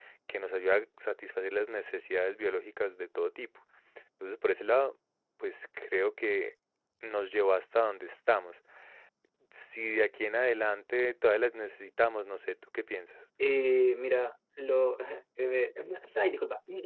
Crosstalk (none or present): none